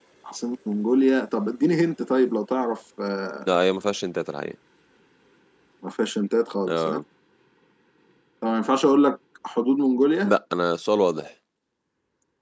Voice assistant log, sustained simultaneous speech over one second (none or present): none